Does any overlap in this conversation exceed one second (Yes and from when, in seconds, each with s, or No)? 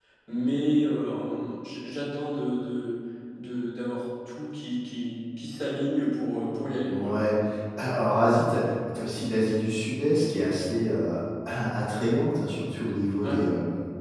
No